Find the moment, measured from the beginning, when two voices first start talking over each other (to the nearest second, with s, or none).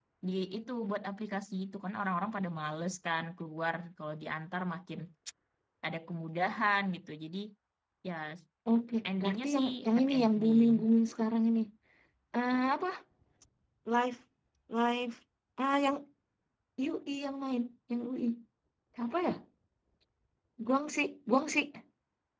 9 s